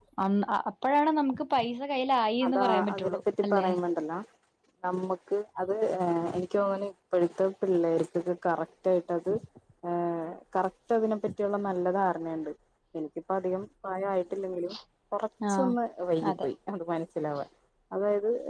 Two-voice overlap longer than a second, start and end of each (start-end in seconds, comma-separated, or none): 2.5-3.7